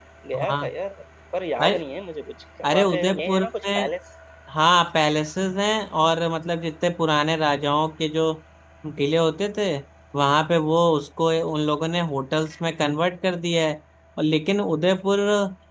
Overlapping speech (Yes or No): Yes